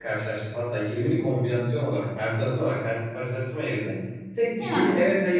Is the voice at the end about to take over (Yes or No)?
No